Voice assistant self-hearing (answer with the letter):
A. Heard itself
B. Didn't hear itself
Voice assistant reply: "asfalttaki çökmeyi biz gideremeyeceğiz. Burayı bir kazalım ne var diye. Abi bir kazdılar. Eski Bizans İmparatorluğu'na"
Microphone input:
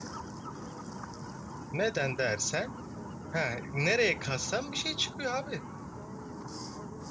B